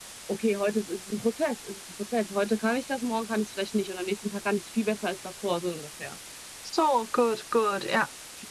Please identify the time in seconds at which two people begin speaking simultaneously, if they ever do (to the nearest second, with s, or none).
none